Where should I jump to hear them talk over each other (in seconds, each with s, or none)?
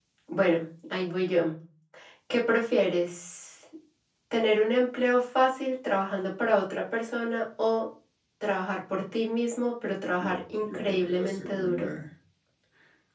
10.2 s